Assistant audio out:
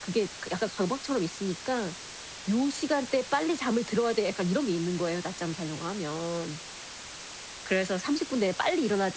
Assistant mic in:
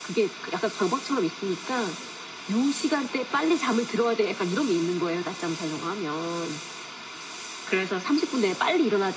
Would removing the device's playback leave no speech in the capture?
Yes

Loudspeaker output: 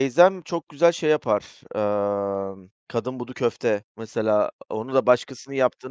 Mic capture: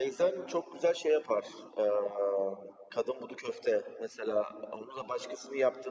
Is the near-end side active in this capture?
No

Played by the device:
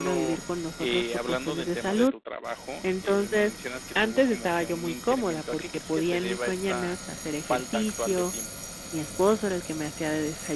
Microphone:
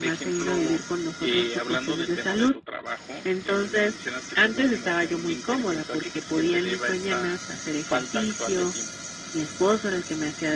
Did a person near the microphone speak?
No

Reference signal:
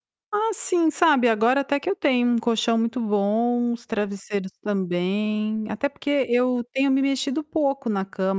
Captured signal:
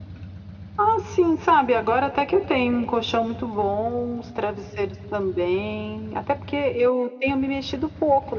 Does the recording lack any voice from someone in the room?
Yes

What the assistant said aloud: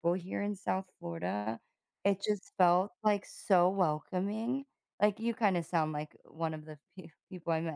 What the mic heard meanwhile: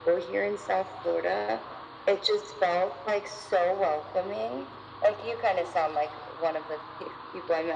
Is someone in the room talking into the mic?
No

